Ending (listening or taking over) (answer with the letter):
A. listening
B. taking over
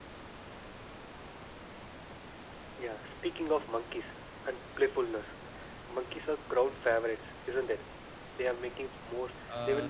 A